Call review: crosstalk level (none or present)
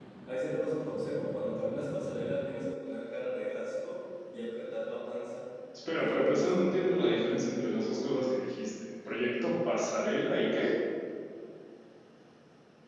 present